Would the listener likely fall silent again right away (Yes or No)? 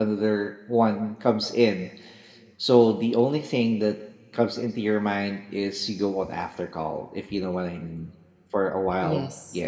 Yes